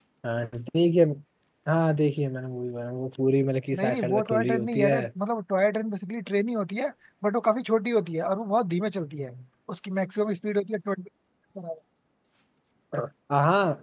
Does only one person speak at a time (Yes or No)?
No